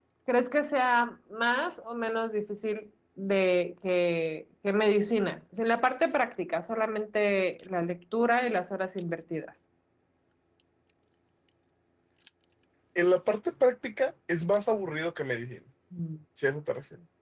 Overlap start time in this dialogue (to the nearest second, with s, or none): none